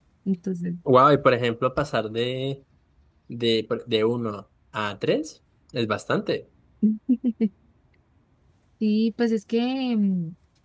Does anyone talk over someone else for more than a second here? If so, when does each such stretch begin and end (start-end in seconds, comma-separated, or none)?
none